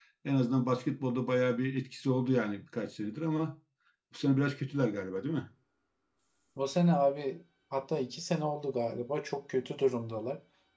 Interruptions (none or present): none